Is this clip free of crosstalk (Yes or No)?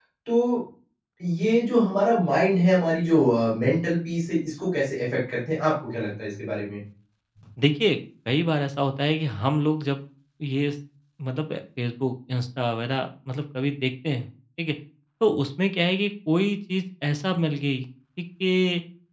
Yes